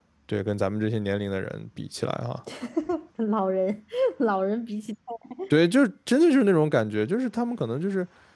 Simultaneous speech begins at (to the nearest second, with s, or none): none